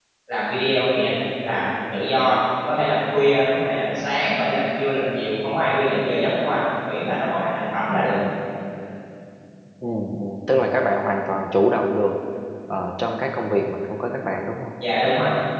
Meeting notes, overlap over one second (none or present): none